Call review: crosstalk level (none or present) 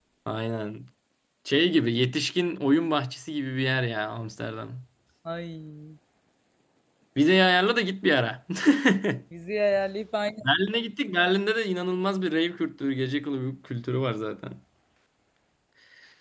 none